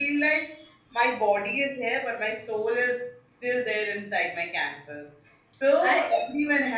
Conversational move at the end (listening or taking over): listening